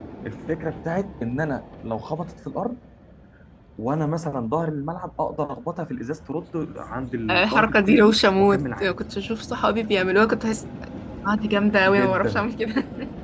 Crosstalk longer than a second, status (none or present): present